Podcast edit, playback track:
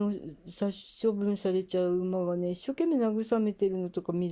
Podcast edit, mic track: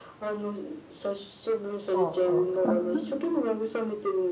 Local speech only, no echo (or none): そうそうそう。